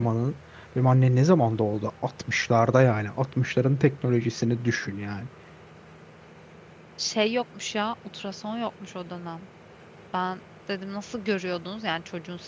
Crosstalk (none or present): none